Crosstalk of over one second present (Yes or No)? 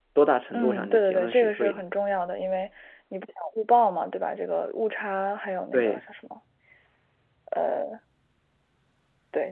Yes